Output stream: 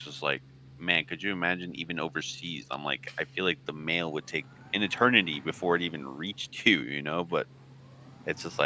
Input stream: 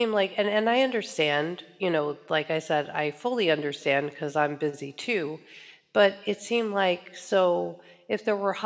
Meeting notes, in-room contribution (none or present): present